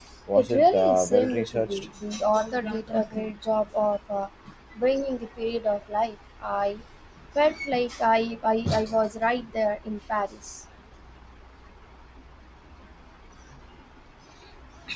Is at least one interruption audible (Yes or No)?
Yes